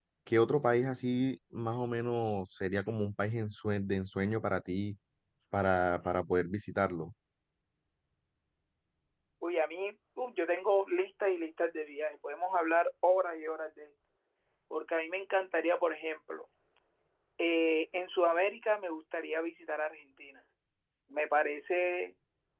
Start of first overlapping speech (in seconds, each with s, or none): none